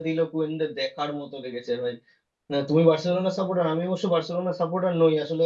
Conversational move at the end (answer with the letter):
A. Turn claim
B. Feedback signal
B